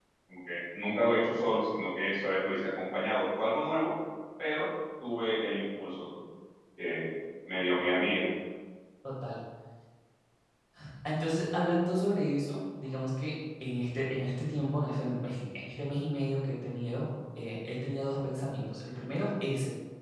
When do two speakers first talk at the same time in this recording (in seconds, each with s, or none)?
none